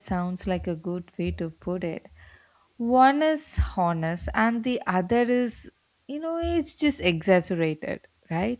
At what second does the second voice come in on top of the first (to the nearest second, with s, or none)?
none